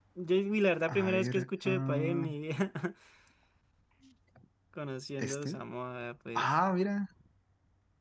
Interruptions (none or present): present